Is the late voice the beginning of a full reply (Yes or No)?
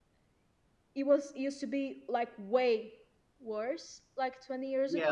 Yes